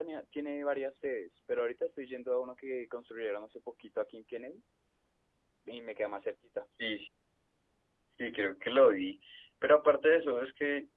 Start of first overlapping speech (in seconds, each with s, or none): none